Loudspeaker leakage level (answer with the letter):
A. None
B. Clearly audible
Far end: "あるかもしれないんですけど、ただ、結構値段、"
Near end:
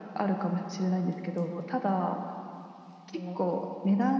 B